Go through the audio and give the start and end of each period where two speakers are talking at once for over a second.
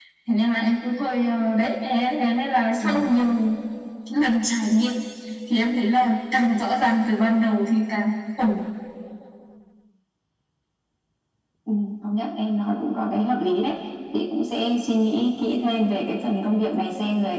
none

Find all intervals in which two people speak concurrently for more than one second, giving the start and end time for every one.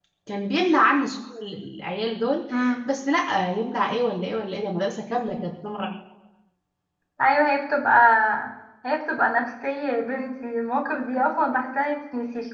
none

